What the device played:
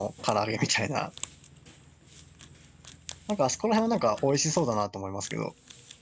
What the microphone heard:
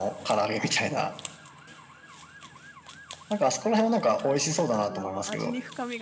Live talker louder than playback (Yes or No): No